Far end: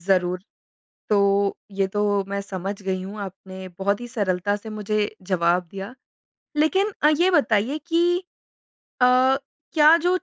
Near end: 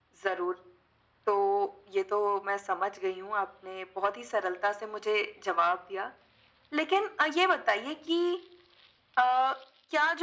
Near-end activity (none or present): none